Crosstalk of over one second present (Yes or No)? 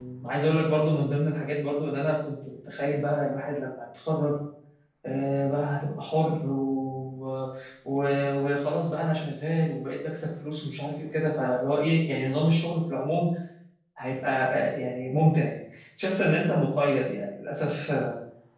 No